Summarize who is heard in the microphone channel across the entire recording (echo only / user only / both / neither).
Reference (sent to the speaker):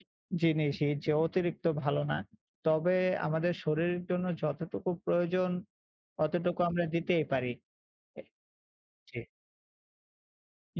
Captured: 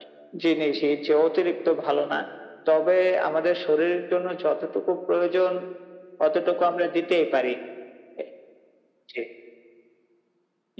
echo only